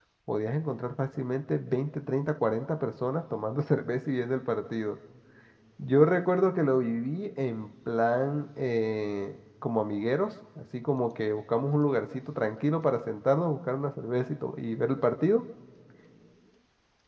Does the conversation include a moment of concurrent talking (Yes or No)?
No